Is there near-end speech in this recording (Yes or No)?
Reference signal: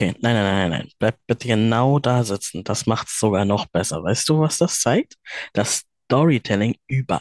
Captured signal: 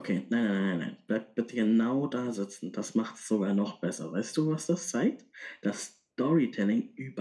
No